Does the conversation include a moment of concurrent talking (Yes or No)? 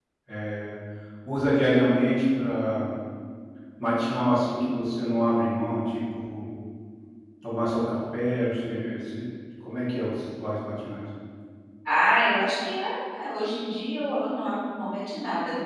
No